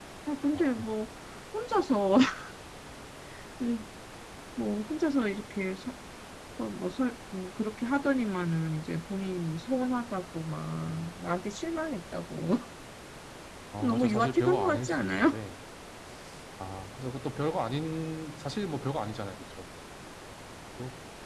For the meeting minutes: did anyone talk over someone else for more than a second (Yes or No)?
Yes